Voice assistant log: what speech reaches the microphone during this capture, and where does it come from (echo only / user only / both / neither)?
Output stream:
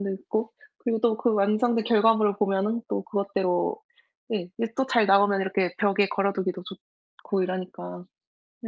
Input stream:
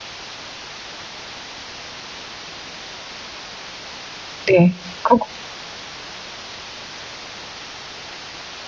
user only